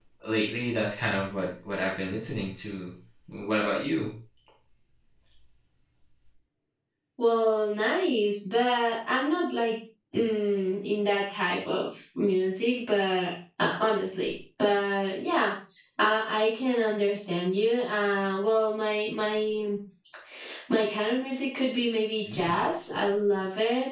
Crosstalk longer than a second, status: none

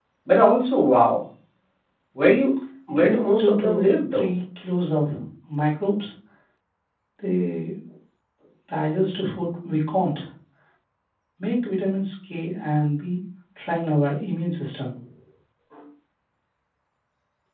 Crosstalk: present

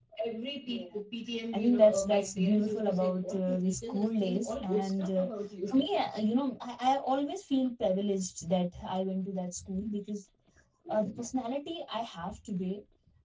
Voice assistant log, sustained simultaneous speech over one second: present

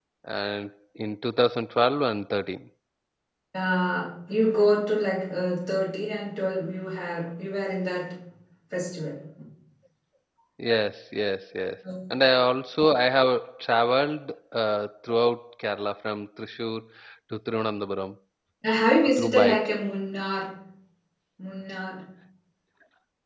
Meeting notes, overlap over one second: none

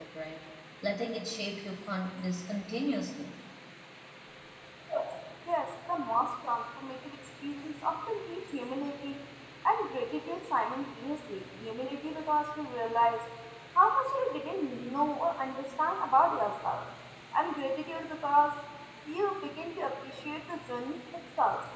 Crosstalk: none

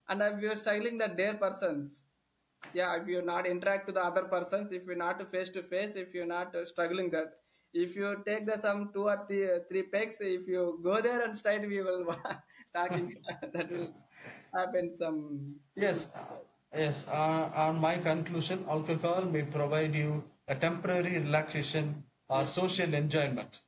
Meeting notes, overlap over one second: none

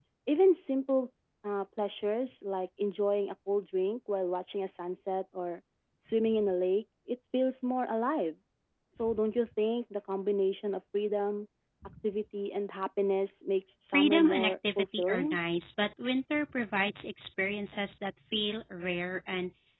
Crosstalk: present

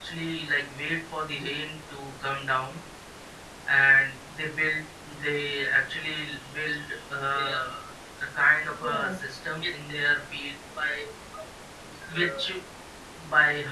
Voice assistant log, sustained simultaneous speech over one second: none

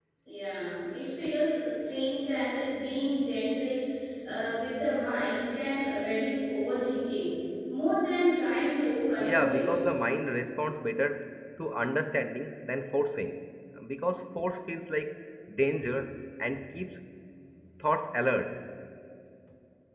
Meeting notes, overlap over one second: none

